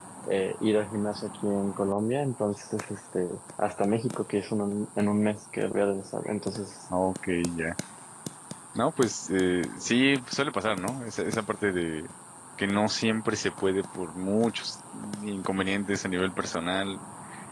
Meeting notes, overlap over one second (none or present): none